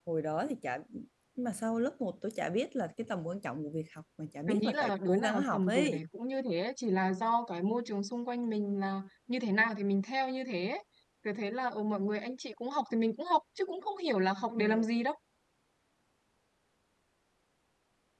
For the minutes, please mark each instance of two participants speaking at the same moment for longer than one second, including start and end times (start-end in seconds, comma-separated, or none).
4.5-6.0